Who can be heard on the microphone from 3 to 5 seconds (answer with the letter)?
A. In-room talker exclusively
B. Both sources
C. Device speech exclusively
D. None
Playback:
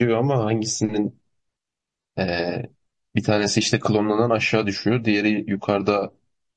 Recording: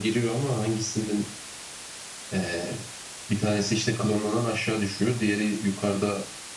C